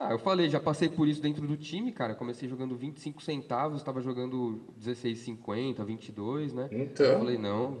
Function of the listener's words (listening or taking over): listening